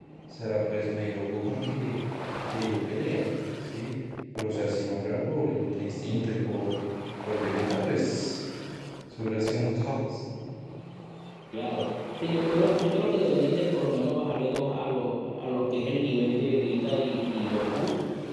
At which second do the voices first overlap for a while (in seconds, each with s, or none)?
none